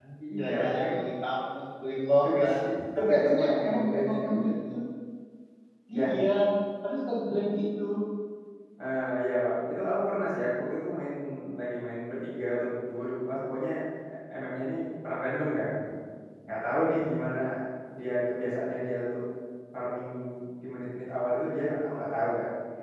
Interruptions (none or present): present